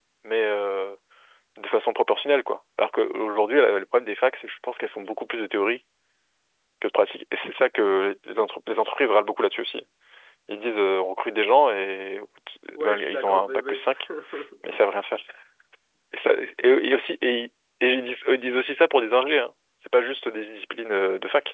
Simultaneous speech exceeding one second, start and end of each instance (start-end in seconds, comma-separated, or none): 12.8-14.0